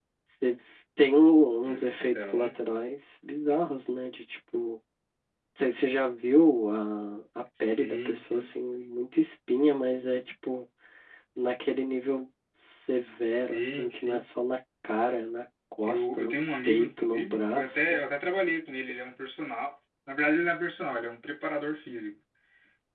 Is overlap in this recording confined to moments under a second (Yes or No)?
No